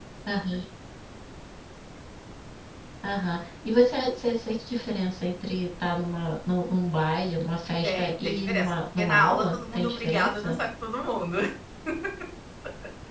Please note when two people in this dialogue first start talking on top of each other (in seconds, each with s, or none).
7.8 s